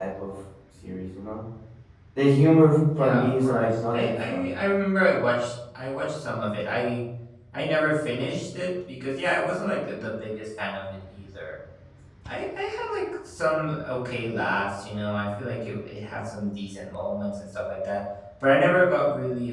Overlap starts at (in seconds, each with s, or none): 3.0 s